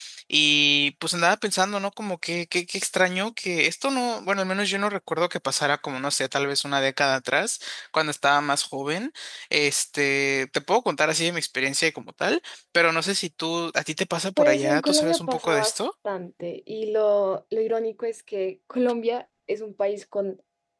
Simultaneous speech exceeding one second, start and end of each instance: 14.4-15.8

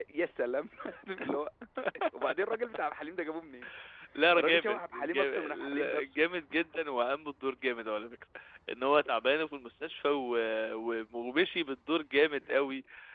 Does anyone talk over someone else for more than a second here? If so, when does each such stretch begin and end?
4.3-6.2

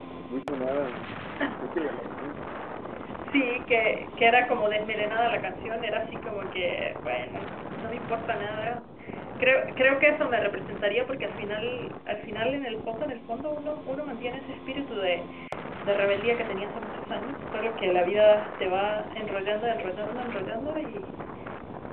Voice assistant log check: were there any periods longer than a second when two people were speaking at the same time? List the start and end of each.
none

